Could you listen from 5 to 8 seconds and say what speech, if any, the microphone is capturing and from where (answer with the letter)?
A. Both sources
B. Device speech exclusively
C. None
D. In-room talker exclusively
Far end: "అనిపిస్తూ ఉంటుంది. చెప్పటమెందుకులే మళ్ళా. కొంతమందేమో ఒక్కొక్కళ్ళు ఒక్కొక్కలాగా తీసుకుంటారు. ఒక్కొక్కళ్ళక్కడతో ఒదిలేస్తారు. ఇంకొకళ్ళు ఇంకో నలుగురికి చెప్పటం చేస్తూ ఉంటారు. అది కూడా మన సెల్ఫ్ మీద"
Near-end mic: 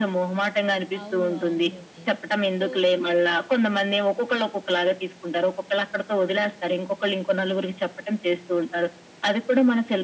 B